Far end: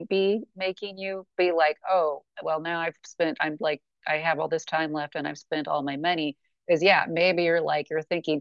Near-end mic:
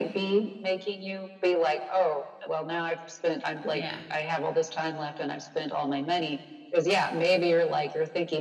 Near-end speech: present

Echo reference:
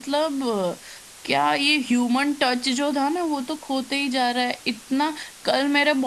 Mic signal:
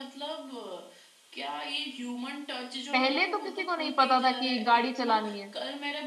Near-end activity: present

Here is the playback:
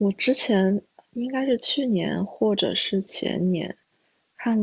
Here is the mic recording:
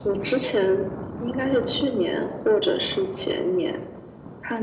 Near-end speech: none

